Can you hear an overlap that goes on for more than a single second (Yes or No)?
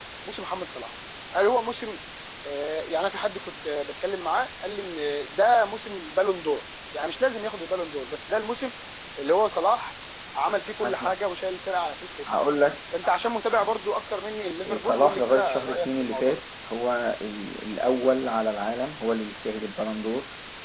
Yes